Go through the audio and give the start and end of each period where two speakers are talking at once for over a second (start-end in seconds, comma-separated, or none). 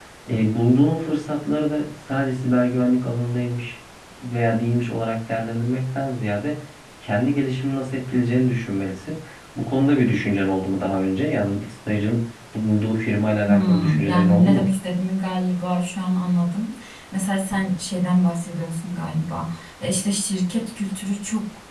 13.5-14.7